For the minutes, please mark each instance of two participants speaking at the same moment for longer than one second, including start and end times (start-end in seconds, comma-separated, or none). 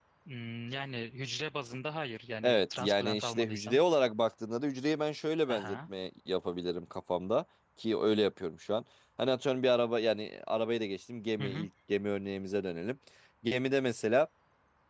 2.4-3.8